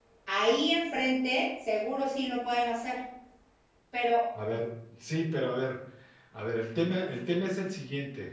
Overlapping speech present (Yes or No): No